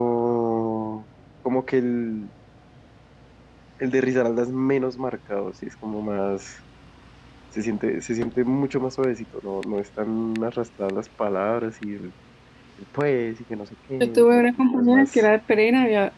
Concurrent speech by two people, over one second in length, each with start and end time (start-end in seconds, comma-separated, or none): 14.0-15.2